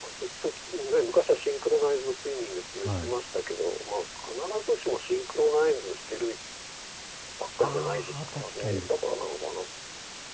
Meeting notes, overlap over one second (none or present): present